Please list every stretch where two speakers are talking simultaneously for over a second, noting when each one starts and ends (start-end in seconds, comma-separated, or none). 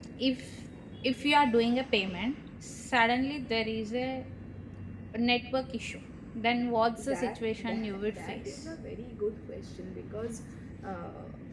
7.0-8.7